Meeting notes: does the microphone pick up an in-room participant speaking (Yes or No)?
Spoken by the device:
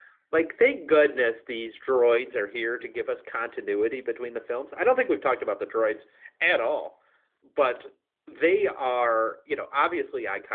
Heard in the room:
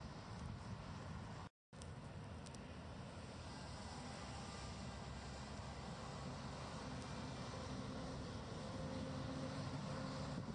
No